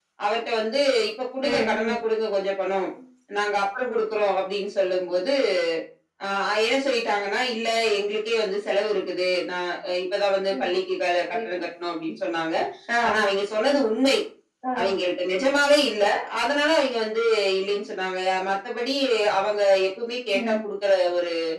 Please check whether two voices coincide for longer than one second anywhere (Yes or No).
No